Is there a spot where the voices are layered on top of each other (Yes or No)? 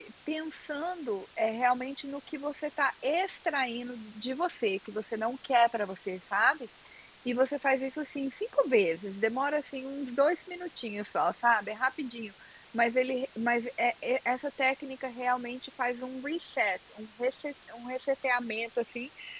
No